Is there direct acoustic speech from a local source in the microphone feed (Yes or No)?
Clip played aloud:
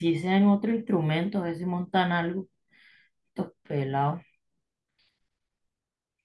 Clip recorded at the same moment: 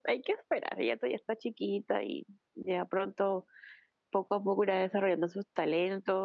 Yes